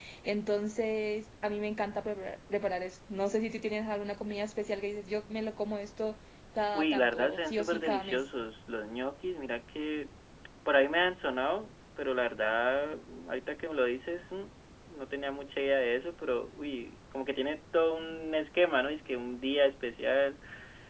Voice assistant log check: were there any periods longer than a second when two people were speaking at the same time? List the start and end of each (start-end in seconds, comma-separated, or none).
6.7-8.2